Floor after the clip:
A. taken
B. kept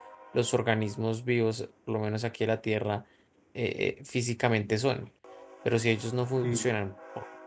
B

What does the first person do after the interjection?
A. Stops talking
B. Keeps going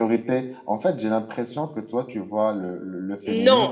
A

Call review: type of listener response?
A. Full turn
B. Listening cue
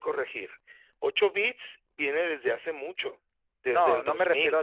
A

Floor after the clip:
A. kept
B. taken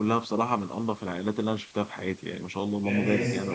B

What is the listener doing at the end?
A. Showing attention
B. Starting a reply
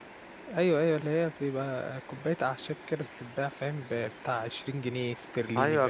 B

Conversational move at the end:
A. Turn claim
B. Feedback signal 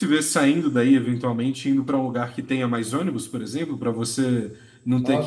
A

